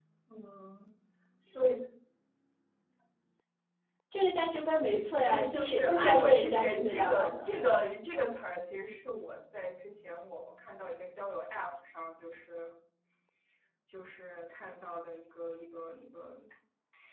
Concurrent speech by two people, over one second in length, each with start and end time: 5.2-7.5

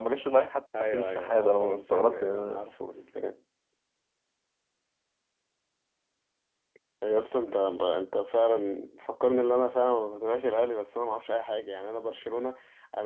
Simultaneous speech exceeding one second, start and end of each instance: 0.8-2.6

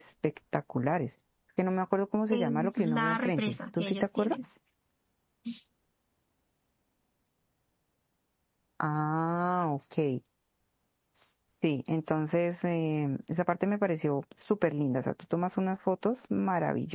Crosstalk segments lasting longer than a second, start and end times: 2.3-4.3

